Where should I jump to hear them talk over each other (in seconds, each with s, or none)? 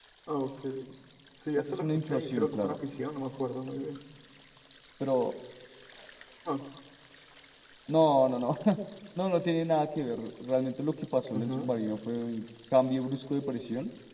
1.6 s